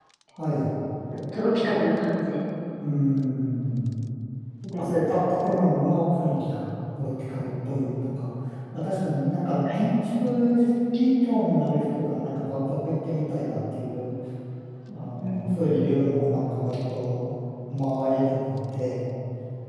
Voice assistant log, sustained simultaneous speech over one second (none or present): none